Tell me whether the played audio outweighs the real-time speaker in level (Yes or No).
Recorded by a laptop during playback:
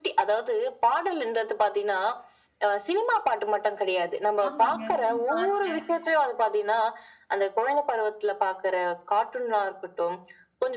Yes